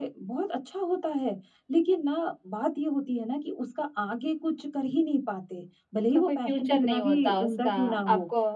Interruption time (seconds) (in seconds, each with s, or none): 6.1 s